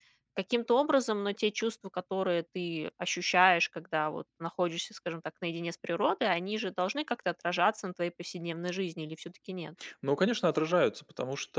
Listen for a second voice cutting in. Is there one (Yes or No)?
No